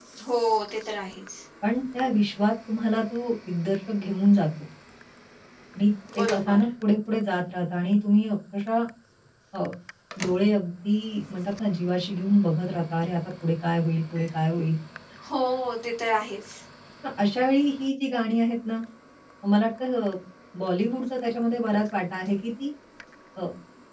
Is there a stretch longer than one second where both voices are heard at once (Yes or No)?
No